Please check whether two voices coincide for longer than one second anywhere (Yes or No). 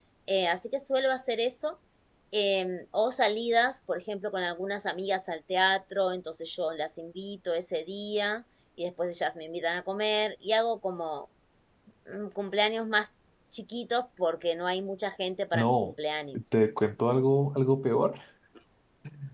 No